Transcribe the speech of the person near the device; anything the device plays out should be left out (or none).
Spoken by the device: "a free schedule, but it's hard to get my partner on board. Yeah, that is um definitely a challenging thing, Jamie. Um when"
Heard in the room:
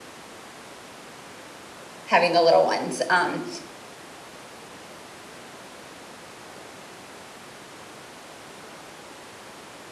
having the little ones. Um,